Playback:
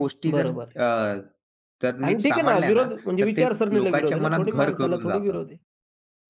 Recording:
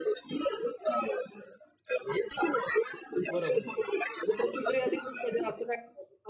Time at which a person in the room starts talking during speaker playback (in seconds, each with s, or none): 3.3 s